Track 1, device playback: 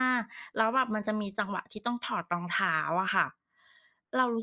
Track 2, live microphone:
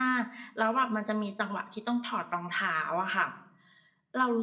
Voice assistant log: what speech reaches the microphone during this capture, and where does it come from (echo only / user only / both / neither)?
echo only